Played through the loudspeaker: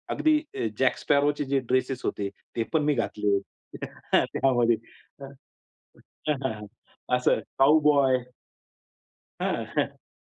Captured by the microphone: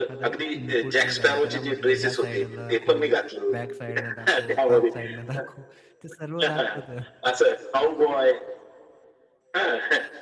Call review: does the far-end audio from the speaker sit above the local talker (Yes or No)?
Yes